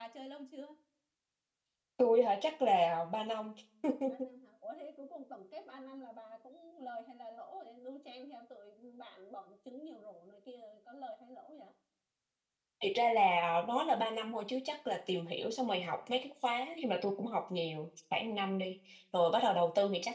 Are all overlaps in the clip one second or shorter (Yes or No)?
Yes